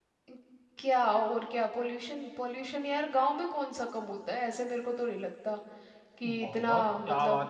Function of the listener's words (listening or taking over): taking over